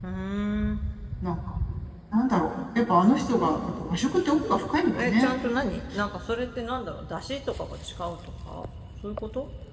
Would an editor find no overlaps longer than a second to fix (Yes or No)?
Yes